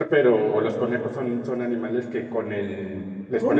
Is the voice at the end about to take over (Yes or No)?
No